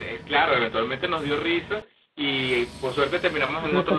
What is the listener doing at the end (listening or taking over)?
taking over